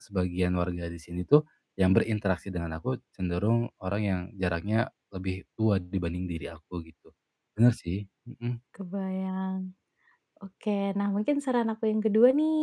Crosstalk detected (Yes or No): No